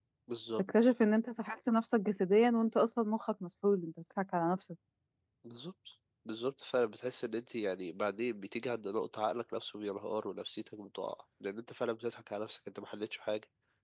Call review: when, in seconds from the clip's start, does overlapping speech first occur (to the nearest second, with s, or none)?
none